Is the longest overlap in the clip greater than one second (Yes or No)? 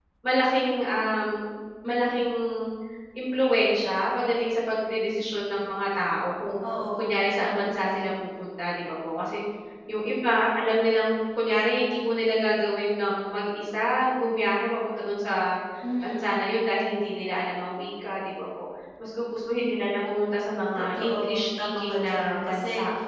Yes